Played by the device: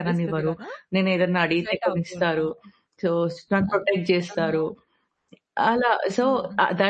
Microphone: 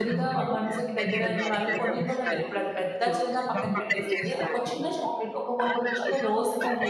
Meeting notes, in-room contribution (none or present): present